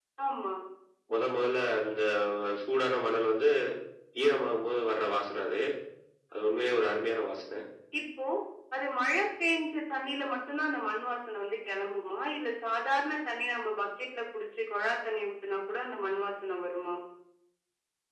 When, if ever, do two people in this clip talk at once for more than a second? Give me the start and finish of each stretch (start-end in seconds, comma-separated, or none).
none